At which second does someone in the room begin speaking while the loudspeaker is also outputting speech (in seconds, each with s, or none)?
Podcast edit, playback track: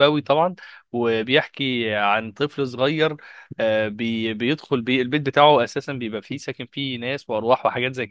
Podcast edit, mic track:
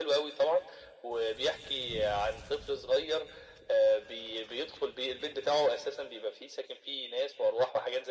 none